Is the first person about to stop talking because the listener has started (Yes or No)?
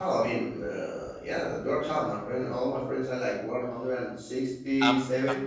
No